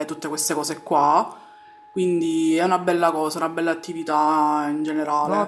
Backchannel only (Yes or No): No